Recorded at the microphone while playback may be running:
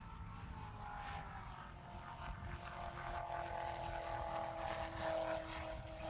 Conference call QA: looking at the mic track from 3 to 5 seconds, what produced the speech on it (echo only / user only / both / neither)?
neither